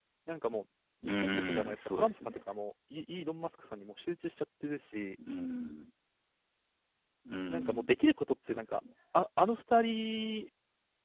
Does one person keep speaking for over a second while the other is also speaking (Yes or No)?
Yes